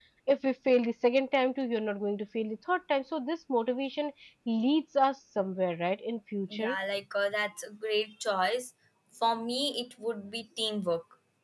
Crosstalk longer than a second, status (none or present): none